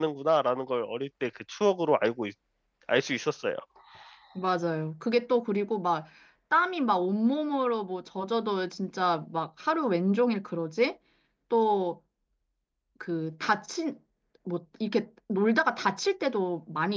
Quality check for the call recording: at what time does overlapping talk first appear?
none

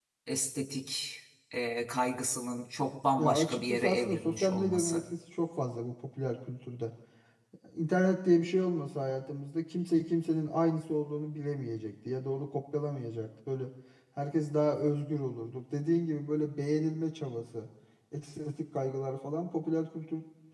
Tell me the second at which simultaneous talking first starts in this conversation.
3 s

